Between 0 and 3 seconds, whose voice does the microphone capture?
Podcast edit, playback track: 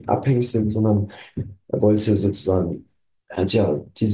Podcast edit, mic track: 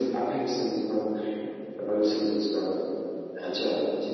echo only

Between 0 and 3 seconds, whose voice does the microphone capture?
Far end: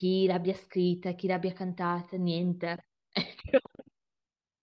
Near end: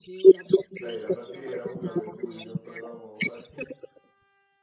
both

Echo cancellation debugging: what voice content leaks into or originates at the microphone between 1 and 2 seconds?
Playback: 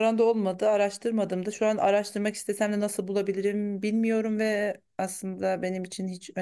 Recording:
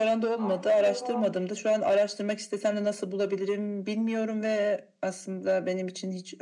both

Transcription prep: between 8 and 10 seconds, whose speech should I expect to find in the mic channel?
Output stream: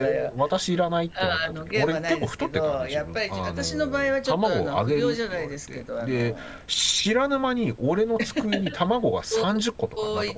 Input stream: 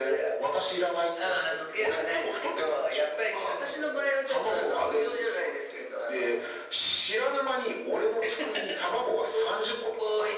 echo only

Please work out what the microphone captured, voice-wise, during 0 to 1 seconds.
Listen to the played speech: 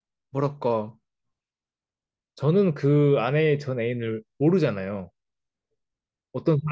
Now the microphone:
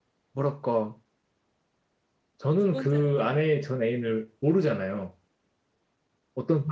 echo only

